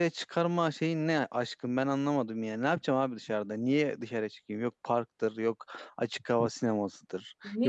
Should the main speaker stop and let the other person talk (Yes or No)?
Yes